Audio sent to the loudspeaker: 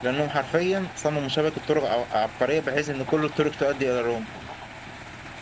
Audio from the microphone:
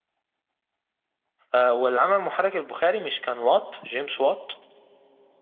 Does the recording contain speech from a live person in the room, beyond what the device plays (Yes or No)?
Yes